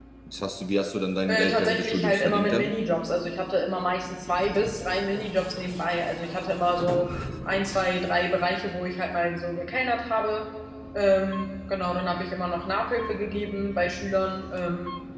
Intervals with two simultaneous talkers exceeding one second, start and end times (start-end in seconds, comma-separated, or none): 1.3-2.7